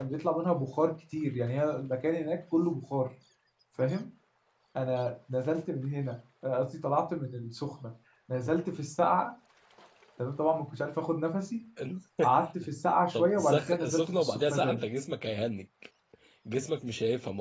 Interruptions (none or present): present